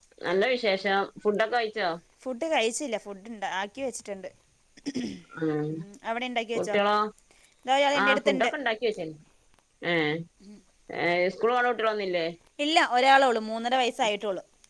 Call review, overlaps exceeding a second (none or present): none